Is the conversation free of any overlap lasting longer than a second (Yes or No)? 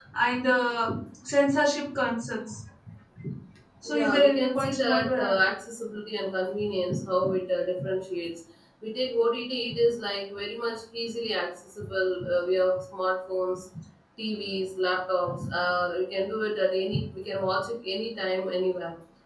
No